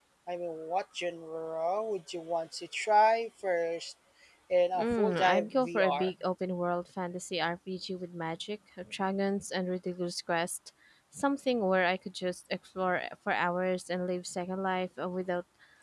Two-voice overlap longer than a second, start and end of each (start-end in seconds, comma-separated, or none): 4.8-6.1